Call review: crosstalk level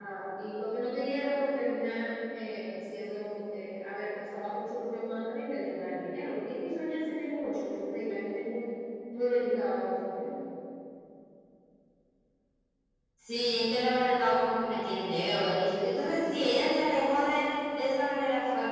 none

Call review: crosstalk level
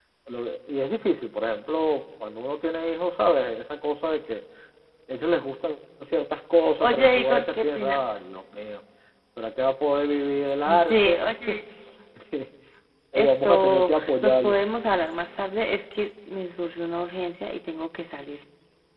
present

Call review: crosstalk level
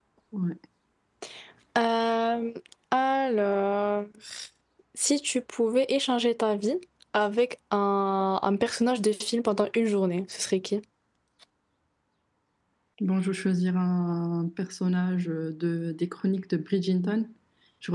none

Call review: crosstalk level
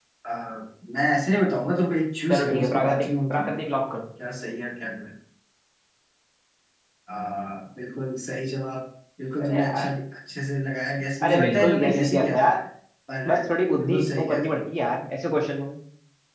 present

